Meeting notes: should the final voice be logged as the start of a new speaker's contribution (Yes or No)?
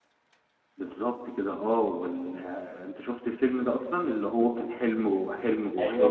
Yes